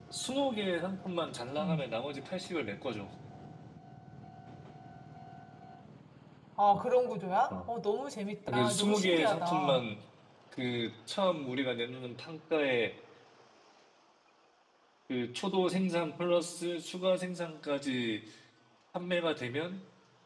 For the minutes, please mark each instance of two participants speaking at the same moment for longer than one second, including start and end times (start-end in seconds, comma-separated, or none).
8.5-9.8